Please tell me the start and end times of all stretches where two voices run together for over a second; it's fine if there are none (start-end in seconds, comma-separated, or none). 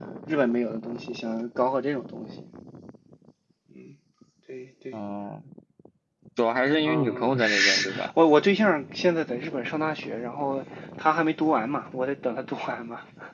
6.8-8.1